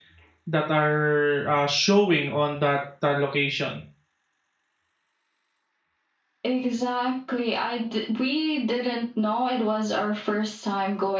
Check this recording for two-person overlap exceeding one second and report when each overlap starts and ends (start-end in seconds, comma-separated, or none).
none